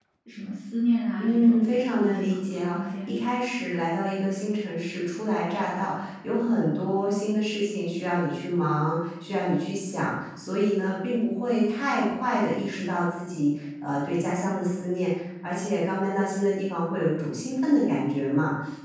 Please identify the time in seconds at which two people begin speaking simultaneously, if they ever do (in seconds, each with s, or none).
1.2 s